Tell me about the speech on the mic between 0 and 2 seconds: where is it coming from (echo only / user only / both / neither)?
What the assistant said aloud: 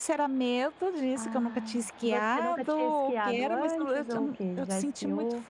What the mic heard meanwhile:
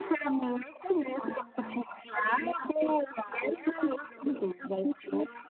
echo only